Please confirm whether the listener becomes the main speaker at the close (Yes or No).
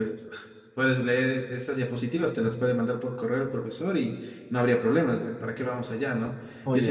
No